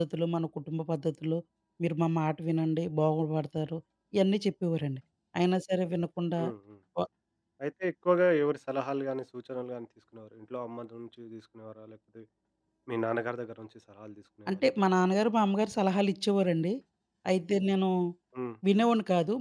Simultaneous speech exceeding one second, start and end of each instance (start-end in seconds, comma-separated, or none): none